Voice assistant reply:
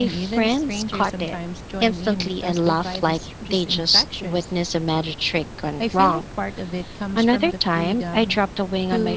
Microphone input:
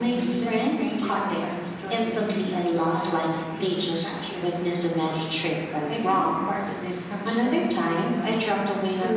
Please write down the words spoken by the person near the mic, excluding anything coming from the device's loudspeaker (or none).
none